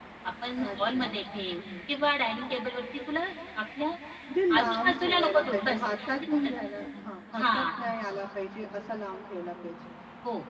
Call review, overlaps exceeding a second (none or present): present